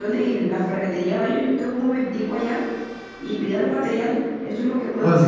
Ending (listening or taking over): taking over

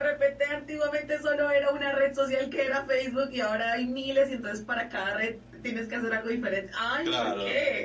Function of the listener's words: taking over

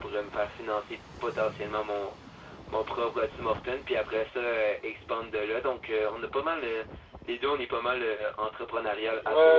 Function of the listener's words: taking over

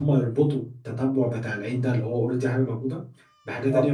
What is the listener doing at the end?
listening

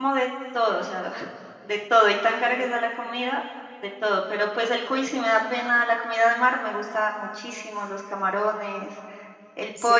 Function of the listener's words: listening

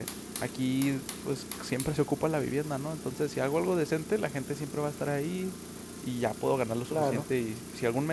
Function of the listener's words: listening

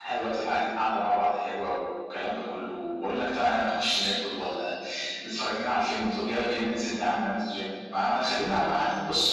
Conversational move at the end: listening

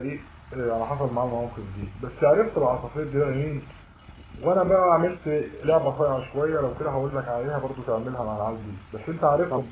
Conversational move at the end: taking over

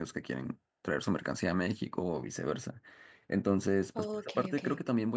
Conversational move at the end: listening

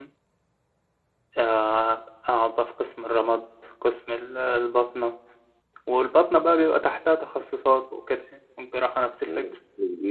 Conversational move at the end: taking over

